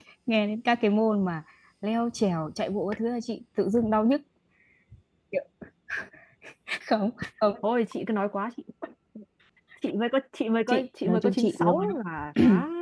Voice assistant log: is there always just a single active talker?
No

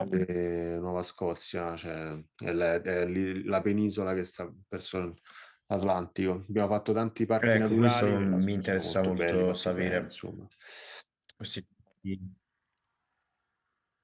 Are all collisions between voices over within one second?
No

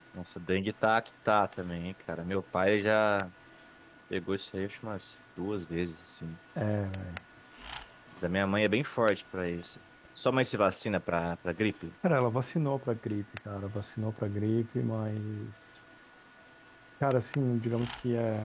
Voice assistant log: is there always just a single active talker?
Yes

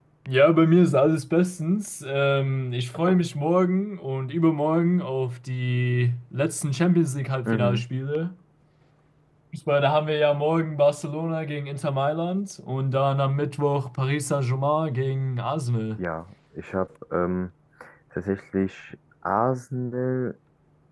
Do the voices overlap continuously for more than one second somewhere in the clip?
No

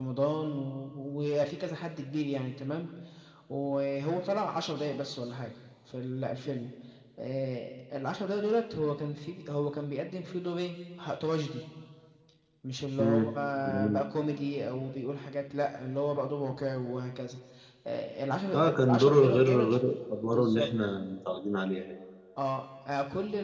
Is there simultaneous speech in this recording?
Yes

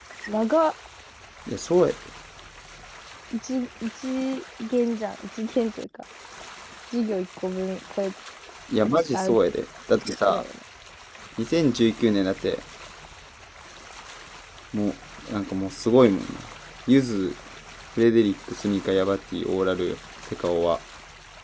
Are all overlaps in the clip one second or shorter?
Yes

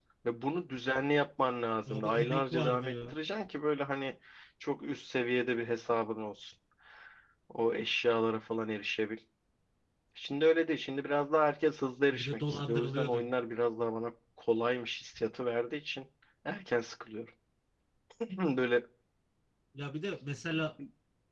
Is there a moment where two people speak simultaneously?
Yes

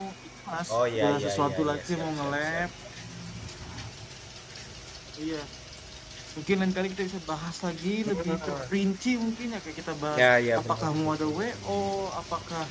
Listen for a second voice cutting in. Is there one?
Yes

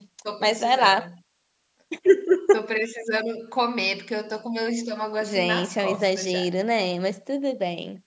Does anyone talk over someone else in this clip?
Yes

